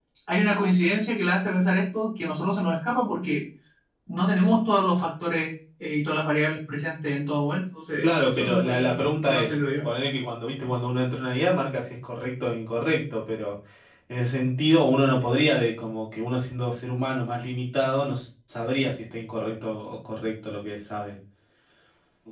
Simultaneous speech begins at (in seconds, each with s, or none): 8.0 s